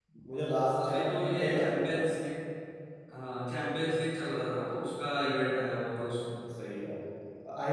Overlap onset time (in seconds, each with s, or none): 0.8 s